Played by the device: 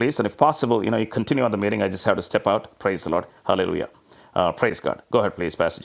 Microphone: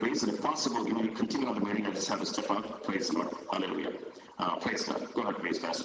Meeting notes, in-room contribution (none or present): none